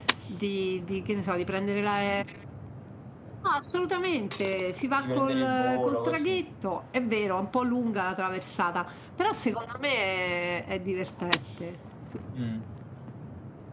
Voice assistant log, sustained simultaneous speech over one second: present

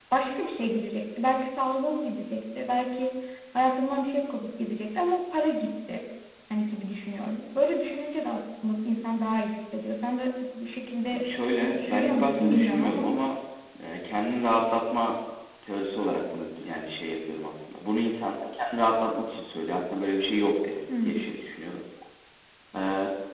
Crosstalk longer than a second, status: present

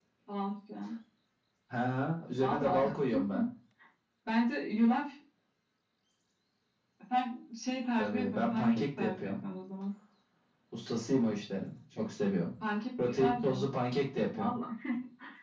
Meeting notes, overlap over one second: present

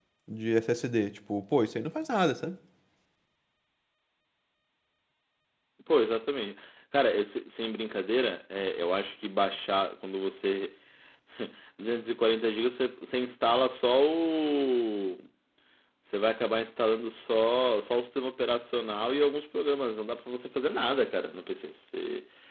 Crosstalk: none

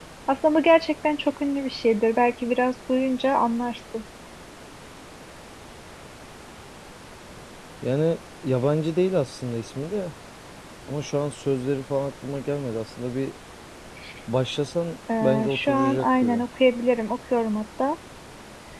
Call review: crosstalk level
present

